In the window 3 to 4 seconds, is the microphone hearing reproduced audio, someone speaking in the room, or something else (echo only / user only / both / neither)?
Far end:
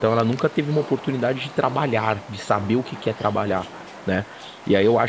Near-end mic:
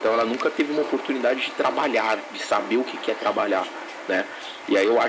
echo only